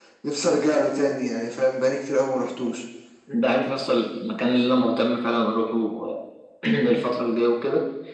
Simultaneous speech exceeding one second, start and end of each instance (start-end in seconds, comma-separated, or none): none